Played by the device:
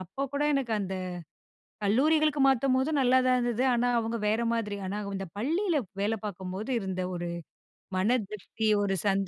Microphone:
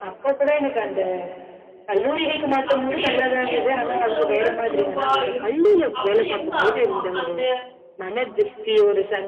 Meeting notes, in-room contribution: present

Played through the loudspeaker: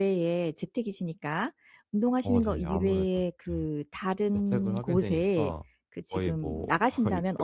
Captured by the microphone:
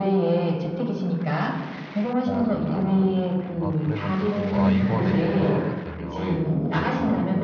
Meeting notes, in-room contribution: present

